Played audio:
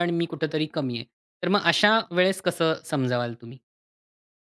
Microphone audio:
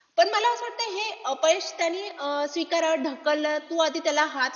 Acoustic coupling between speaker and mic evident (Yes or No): No